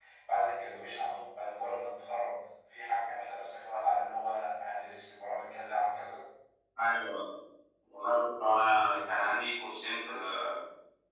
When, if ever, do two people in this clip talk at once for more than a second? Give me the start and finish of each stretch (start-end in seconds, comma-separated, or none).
none